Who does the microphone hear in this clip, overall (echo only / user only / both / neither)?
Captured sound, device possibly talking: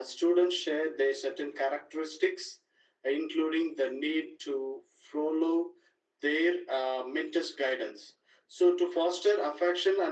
echo only